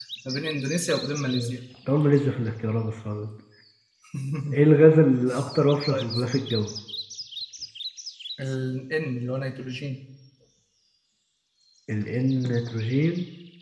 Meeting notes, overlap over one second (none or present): none